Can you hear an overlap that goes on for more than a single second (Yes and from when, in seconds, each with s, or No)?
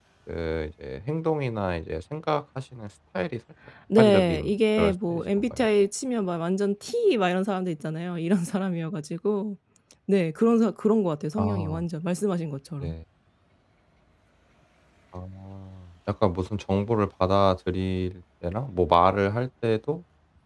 Yes, from 4.0 s